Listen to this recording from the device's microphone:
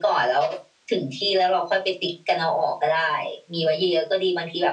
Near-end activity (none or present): none